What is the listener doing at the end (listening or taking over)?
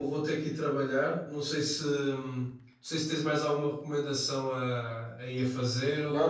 taking over